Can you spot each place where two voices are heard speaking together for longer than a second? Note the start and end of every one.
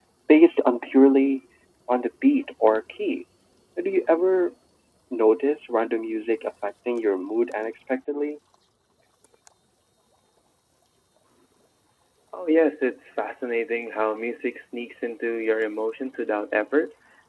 none

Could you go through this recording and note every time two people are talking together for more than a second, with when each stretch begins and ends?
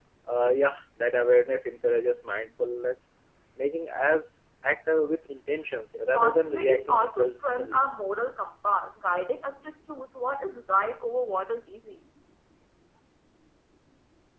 6.1-7.8

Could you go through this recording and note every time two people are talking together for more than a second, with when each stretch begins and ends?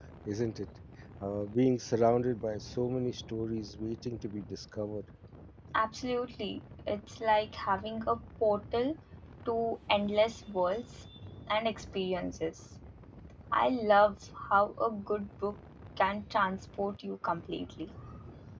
none

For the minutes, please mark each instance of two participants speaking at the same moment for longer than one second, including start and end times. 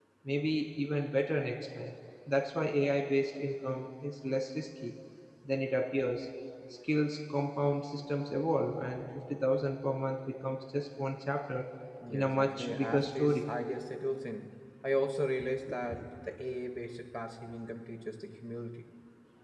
12.1-13.5

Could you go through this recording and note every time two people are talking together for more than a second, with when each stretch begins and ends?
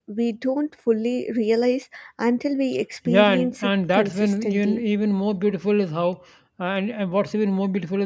3.1-4.8

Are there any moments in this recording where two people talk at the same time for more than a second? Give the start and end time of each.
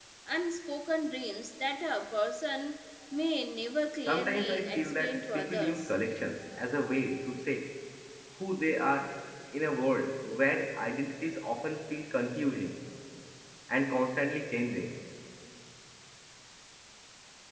4.1-5.9

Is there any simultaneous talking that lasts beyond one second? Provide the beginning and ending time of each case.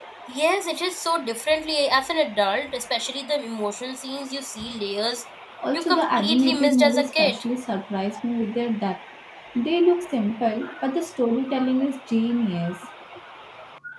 5.7-7.4

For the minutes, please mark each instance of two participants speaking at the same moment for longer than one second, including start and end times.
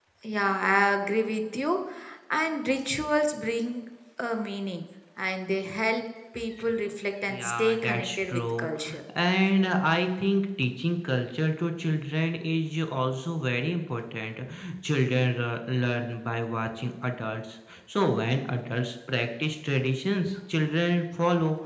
7.3-8.7

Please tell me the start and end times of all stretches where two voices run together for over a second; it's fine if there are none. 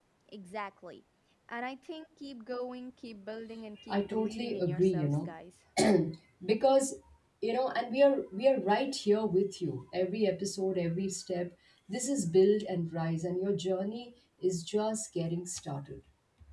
3.9-5.3

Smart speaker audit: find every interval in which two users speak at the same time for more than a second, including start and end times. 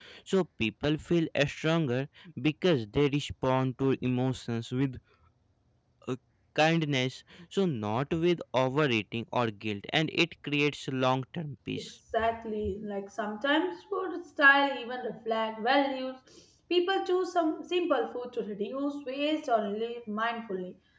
none

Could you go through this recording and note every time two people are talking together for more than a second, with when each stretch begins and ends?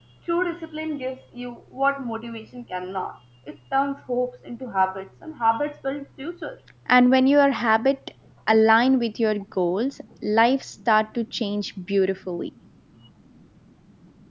none

